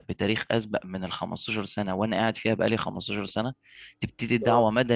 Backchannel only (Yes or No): Yes